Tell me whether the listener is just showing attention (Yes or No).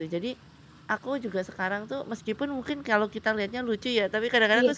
Yes